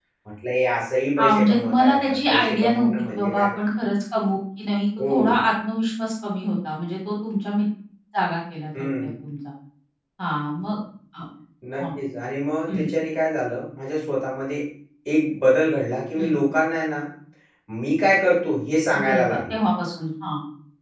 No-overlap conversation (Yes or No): No